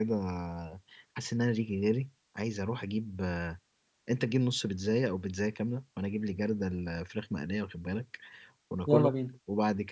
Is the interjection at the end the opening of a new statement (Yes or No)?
No